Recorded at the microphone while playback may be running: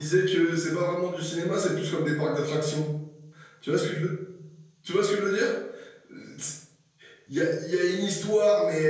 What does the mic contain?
user only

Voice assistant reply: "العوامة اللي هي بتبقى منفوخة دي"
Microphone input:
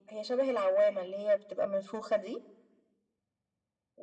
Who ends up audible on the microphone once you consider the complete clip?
echo only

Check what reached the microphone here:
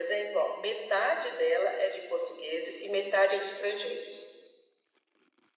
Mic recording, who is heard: echo only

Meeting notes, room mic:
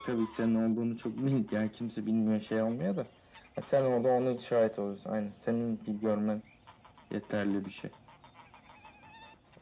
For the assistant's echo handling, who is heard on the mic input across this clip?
echo only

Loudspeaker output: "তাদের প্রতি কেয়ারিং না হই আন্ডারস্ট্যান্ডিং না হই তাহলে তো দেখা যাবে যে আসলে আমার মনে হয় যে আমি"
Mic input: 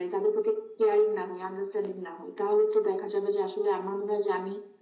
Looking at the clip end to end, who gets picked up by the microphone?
echo only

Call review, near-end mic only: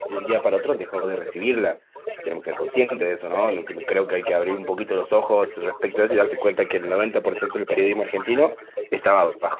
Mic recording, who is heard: both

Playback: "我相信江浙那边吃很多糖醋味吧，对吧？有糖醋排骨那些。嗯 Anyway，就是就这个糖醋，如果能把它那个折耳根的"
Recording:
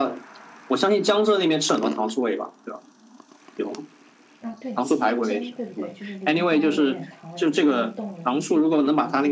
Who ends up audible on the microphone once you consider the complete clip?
both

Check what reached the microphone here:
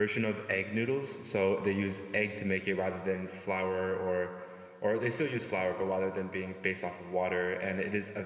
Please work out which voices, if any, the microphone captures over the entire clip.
user only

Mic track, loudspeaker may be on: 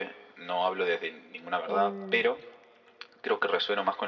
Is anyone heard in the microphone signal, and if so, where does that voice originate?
both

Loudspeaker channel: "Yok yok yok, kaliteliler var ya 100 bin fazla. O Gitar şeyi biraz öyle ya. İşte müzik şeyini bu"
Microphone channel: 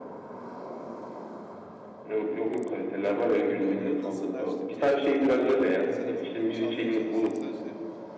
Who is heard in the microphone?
both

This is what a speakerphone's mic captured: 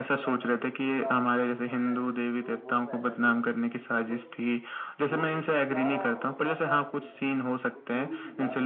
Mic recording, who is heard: both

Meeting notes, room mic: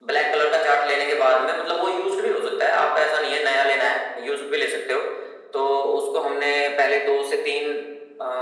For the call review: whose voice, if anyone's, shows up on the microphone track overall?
echo only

